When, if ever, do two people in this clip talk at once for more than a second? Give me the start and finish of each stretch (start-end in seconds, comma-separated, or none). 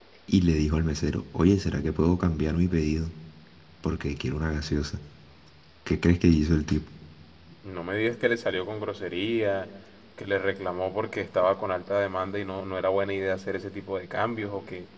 none